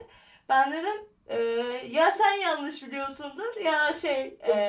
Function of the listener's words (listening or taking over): taking over